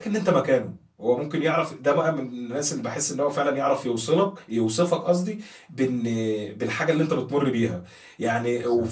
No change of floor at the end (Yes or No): Yes